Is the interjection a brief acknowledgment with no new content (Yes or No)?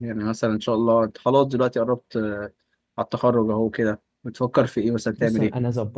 No